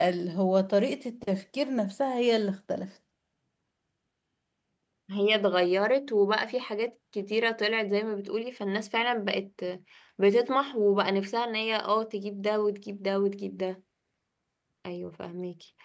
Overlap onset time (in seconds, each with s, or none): none